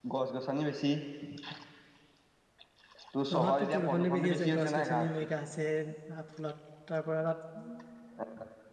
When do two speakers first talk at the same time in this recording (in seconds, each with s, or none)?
3.3 s